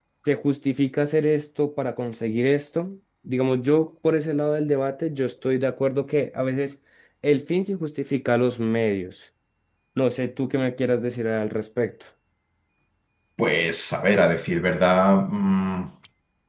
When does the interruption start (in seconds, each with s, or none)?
none